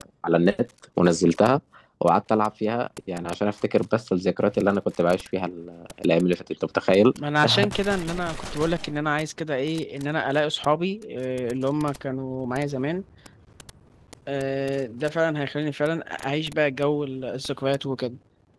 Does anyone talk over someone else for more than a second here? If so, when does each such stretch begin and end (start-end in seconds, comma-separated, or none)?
none